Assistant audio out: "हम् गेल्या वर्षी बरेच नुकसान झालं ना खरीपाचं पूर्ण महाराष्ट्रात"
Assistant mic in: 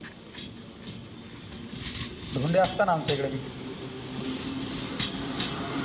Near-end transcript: धोंडे असतात ना आमच्या इकडे ब

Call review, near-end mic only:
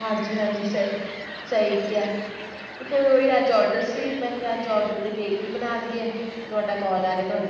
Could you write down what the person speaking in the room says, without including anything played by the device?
none

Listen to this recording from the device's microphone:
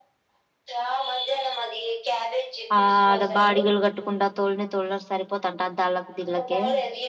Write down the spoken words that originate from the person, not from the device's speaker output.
ఆ ఆడ బాడిగలు కట్టుకుండా తోలిని తోళ్రు సరిపోతుంట దళ్ళకి దిళ్ళకి కే

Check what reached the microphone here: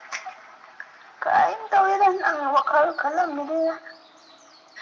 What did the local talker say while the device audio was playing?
none

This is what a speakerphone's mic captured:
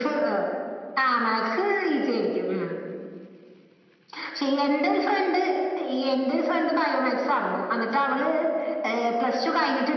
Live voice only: none

